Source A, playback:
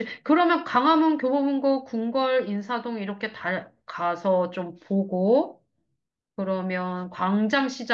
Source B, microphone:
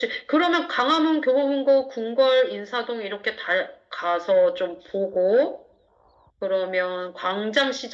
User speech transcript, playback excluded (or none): none